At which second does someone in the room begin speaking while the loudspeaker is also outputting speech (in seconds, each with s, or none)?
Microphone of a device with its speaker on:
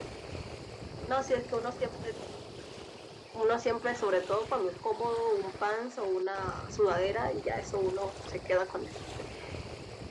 none